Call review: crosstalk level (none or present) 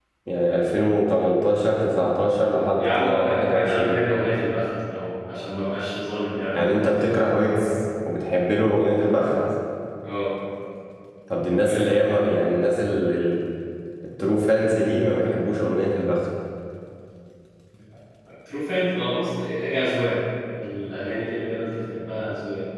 present